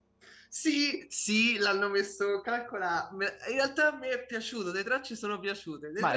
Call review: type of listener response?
taking over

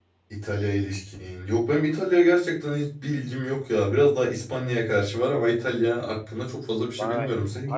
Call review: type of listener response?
taking over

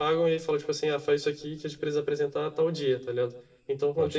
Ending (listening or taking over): listening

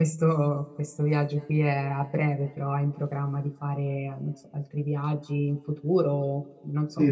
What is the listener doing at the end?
taking over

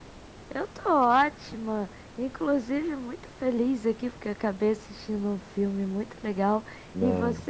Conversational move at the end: listening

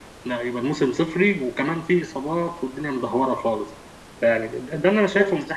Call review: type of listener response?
taking over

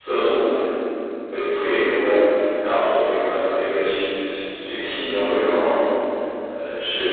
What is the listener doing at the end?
listening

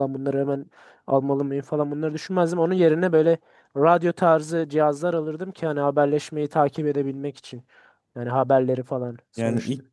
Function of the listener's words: taking over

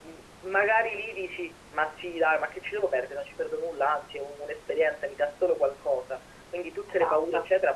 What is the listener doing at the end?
listening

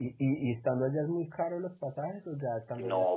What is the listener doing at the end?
taking over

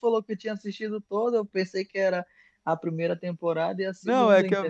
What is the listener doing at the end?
taking over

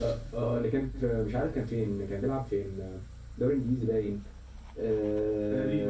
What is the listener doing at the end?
listening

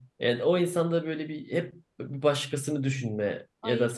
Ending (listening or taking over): listening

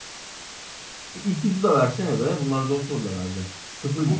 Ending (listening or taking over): taking over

